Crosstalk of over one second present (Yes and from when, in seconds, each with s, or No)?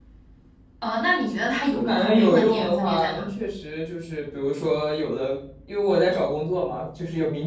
Yes, from 1.7 s